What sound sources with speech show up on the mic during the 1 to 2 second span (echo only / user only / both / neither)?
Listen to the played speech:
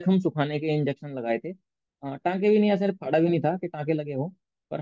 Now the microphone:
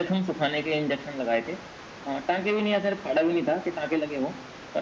echo only